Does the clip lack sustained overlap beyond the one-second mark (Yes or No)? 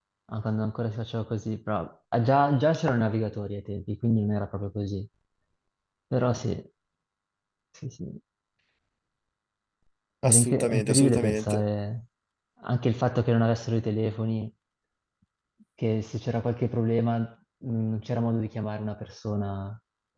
No